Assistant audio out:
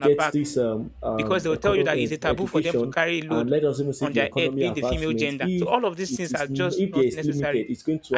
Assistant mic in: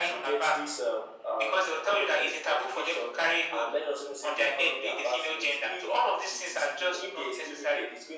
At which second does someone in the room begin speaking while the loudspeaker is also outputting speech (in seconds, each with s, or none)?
none